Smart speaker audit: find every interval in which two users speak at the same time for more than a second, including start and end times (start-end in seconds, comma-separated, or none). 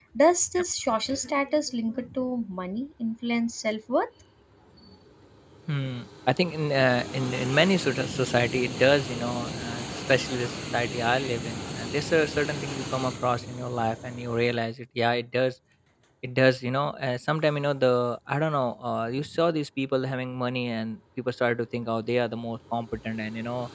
none